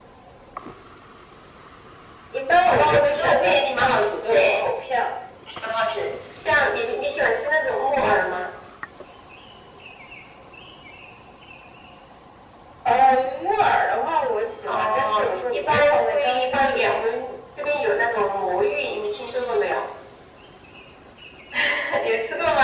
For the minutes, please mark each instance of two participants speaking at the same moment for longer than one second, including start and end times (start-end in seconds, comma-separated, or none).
2.7-4.6, 14.6-17.0